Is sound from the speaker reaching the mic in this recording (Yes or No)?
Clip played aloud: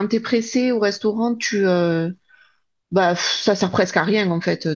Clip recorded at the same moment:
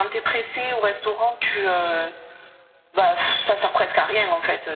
Yes